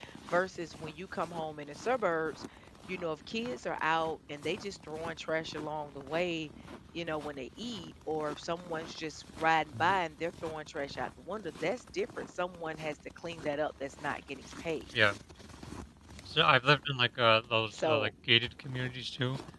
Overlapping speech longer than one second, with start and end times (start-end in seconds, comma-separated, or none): none